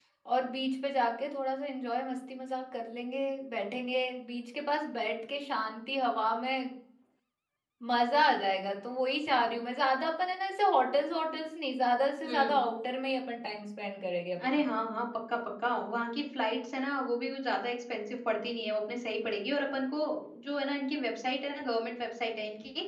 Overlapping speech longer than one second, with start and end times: none

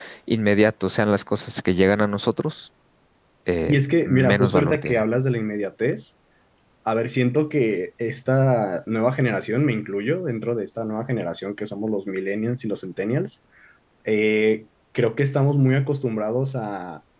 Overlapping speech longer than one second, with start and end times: 3.7-5.0

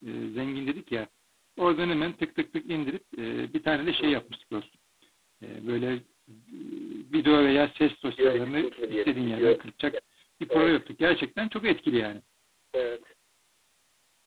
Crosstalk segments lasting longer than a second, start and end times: 8.1-9.6

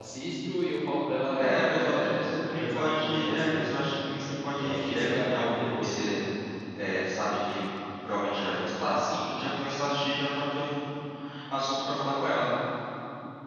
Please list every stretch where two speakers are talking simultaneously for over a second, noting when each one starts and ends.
1.4-3.9, 4.6-6.1

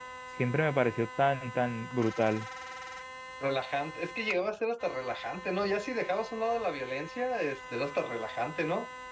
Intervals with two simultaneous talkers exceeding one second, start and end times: none

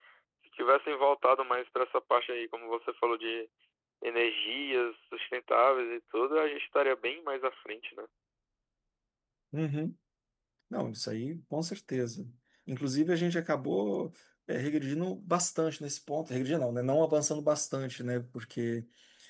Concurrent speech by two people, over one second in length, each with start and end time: none

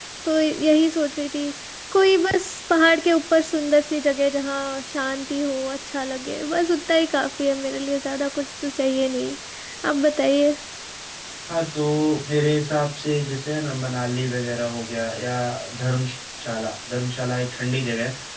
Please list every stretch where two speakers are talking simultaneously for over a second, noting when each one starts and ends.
none

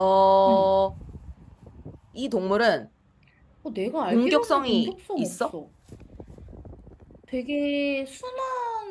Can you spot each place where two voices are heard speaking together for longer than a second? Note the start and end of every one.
4.1-5.4

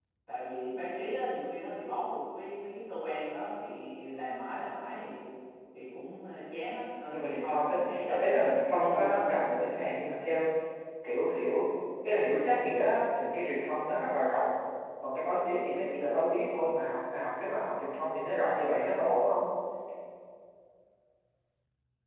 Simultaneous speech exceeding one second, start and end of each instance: 7.1-9.3

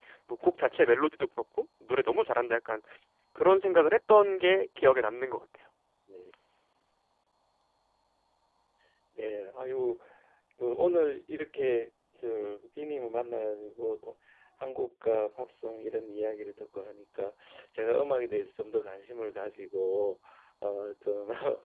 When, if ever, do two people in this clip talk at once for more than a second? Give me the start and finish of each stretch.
none

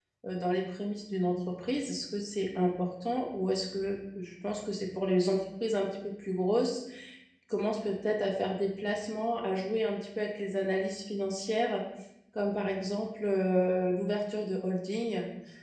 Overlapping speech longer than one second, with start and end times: none

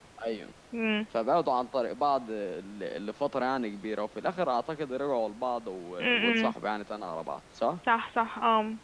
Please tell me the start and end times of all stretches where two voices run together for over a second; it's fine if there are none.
none

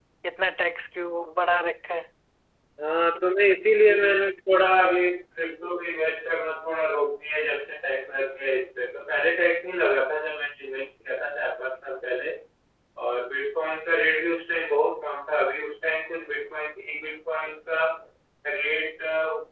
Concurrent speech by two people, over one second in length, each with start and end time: none

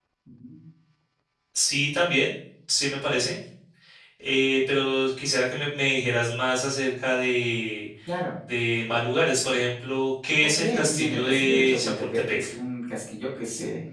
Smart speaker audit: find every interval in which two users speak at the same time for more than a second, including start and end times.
10.4-12.5

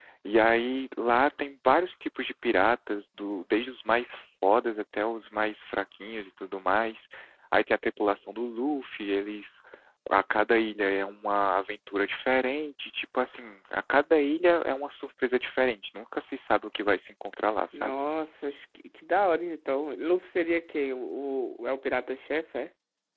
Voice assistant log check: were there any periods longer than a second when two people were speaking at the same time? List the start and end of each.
none

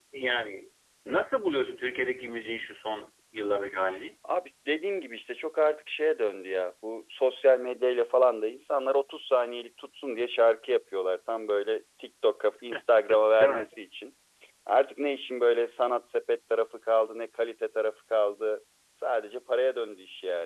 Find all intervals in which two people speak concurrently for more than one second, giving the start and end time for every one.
none

